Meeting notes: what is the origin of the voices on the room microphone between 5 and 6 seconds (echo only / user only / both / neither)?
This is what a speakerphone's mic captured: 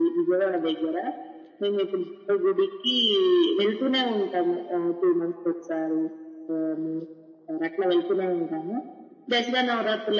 echo only